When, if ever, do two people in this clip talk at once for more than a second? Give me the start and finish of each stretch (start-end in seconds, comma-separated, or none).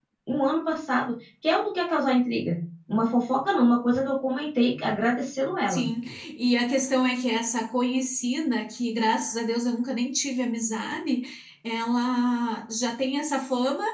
none